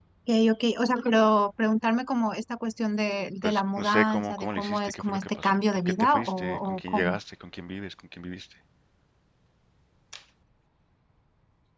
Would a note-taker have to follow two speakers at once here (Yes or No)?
Yes